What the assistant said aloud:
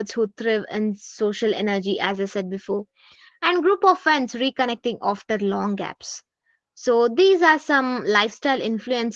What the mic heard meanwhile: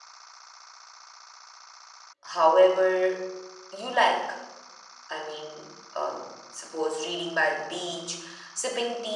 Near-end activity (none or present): present